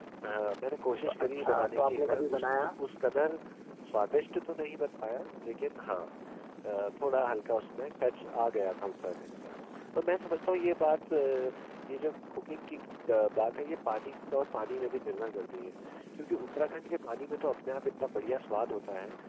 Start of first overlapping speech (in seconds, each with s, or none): 0.9 s